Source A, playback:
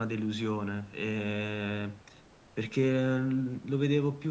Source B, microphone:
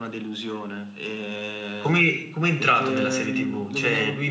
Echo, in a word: present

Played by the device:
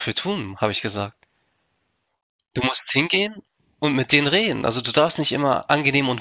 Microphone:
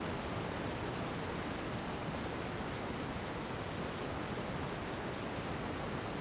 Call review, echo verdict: none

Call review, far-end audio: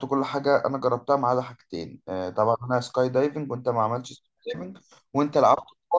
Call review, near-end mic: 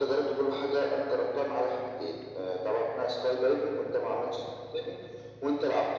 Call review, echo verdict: present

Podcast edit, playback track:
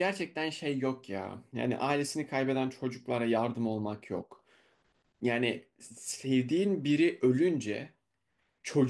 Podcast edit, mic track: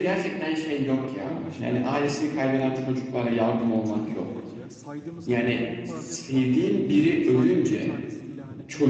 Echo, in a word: present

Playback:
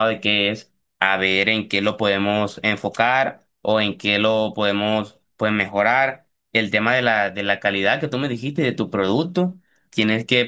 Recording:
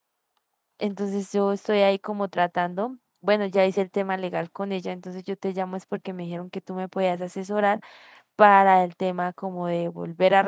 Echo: none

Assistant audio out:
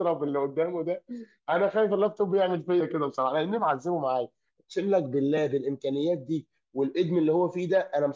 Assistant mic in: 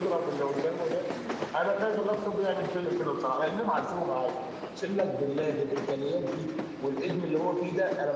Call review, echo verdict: present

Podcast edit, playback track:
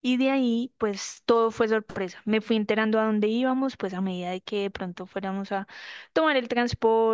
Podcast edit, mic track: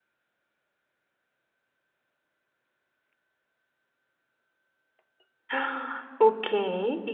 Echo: none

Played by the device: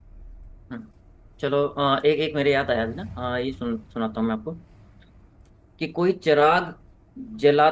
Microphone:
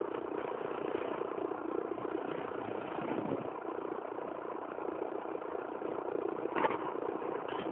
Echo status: none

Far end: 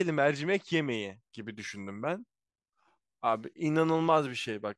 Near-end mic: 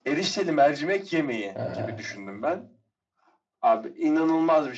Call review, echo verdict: present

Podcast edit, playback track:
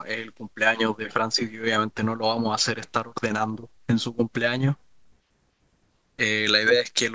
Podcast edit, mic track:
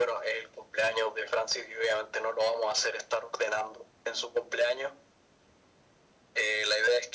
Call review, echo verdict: present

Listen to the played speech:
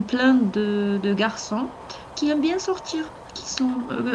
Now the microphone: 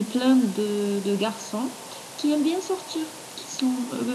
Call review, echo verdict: present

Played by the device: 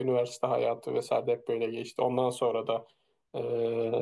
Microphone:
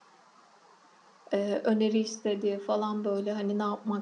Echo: none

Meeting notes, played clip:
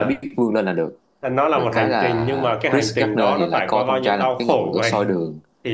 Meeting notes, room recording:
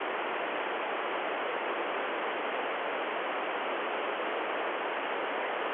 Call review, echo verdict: none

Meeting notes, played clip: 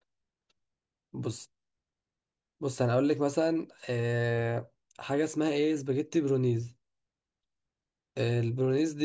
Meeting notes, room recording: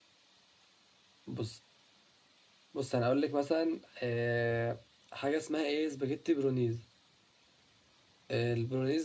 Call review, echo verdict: present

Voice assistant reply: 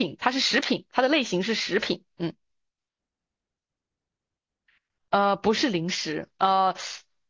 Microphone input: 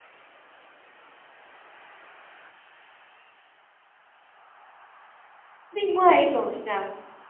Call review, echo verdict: none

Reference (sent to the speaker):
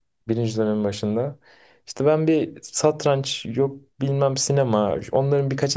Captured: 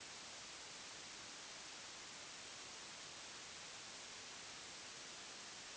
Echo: none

